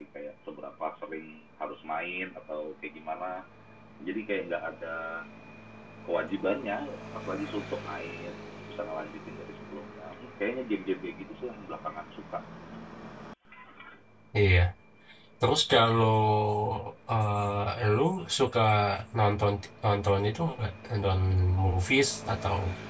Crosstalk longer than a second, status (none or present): none